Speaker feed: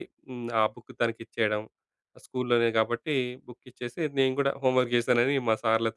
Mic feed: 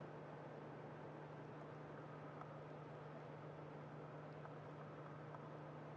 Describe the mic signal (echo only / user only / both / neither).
neither